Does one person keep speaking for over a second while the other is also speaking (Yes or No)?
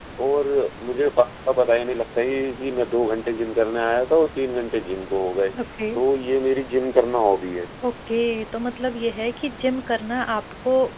No